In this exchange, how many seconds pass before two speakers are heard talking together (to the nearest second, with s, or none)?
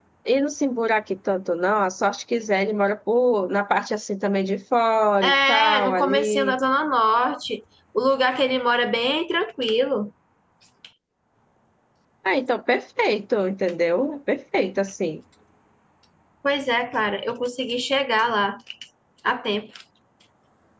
5 s